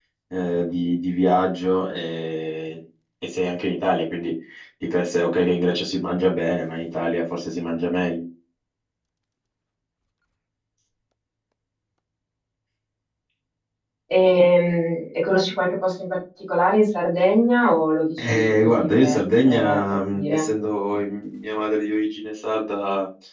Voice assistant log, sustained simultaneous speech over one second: present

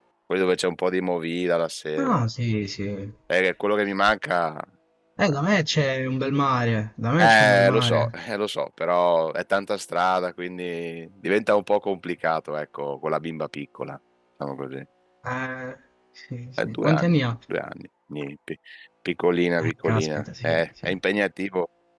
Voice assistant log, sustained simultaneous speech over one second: present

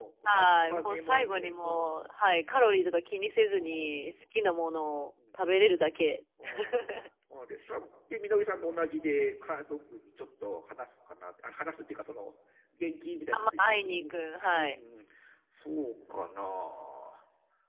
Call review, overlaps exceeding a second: present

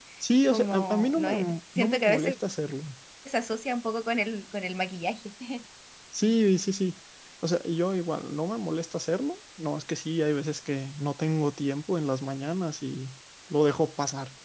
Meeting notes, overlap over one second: present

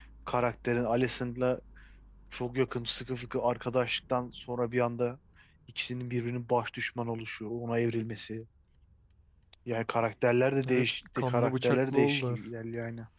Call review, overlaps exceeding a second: present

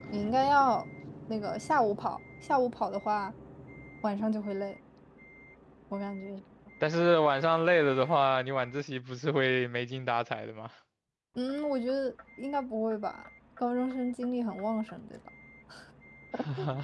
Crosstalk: none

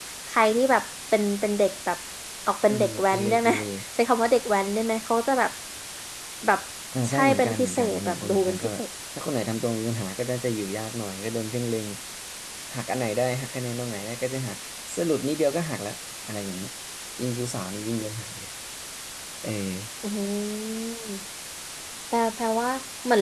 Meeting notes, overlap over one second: present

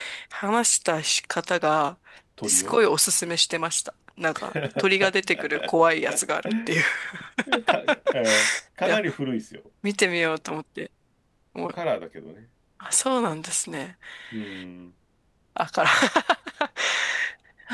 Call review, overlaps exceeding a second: none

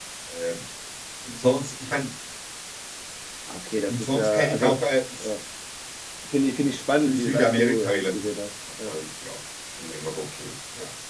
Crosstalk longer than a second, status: present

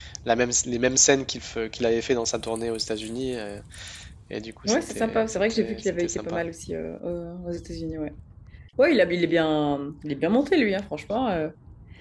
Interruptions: present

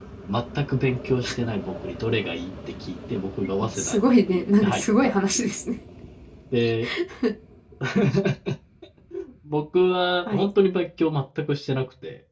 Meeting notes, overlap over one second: present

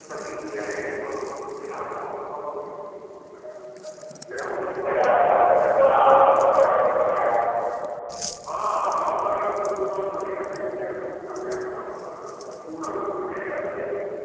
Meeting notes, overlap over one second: none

